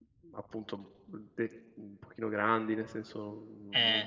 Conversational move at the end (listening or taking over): listening